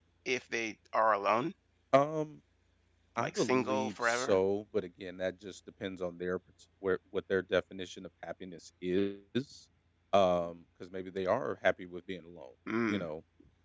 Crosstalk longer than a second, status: present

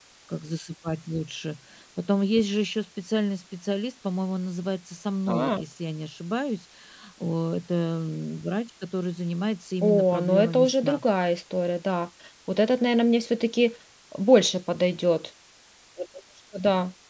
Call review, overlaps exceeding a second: present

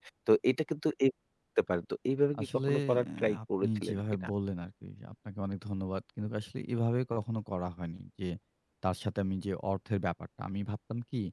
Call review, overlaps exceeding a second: present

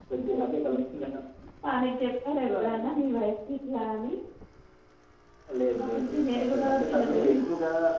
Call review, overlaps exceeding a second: present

